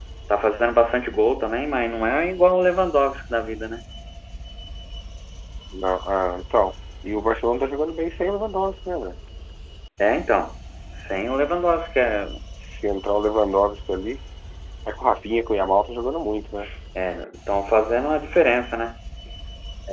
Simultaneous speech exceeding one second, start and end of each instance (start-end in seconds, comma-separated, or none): none